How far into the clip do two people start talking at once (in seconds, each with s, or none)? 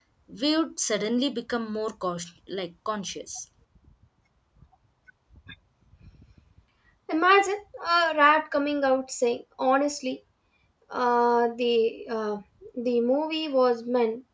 none